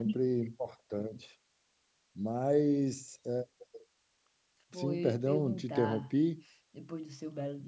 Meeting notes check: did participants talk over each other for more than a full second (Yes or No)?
Yes